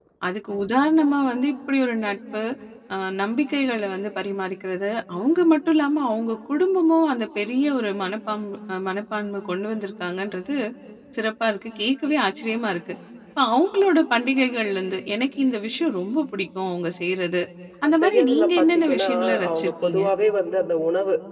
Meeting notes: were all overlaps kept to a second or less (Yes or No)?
No